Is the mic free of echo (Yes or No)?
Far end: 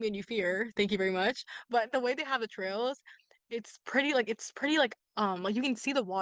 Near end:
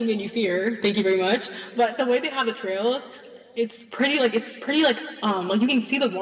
No